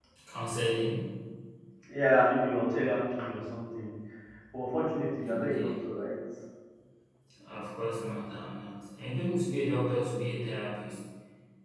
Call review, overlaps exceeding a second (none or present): none